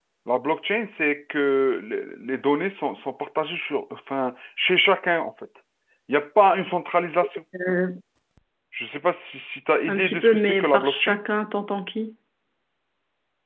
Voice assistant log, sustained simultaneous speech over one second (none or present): present